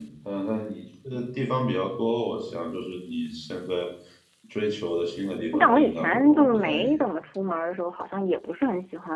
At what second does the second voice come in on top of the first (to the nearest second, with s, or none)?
6 s